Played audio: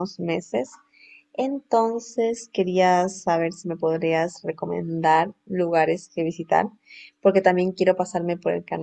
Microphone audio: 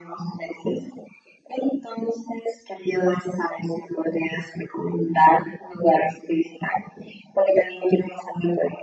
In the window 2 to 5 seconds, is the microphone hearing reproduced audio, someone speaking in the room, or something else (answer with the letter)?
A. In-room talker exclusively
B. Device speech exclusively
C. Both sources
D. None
B